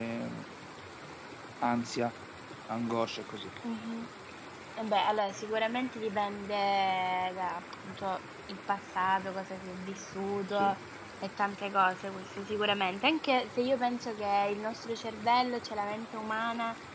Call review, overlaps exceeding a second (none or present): none